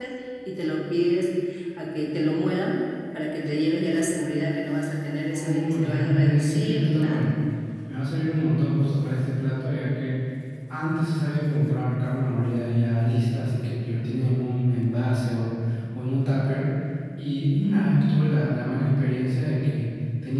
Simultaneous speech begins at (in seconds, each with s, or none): 5.3 s